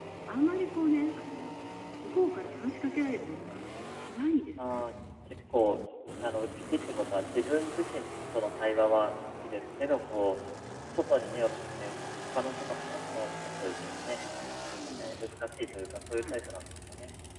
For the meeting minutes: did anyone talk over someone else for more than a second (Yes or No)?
No